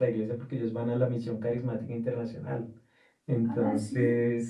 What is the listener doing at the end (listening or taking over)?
listening